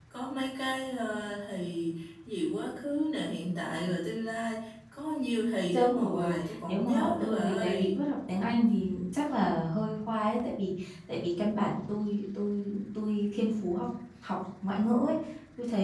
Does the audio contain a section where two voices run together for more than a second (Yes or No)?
Yes